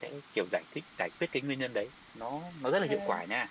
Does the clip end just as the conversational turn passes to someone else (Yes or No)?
No